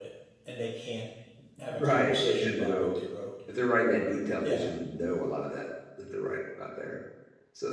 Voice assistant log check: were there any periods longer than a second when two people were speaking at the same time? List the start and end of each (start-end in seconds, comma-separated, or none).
1.7-3.0